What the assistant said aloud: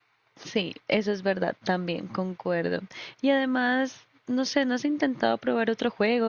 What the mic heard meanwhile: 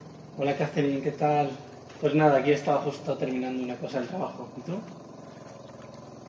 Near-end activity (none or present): present